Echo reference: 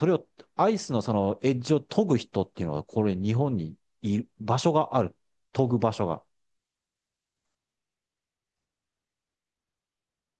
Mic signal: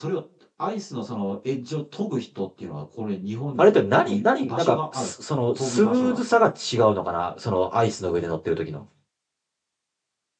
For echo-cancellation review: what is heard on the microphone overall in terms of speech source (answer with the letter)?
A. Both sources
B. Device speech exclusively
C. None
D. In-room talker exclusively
A